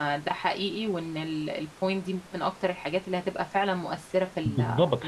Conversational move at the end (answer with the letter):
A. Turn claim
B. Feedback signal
A